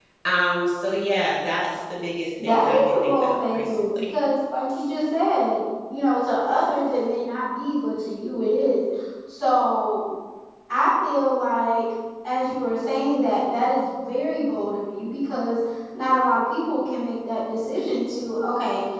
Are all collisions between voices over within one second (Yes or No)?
No